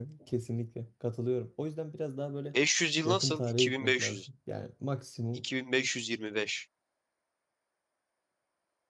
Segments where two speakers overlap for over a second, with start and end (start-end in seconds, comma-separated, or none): 3.0-4.3